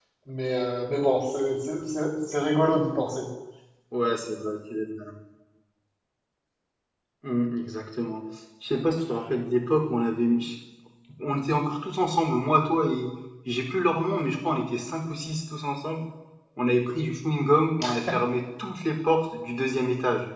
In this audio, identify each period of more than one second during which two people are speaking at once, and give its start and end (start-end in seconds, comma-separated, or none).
none